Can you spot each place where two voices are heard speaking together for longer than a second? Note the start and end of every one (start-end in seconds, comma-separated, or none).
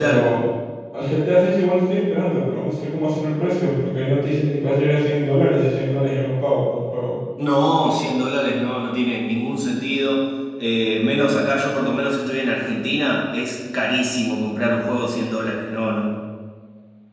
none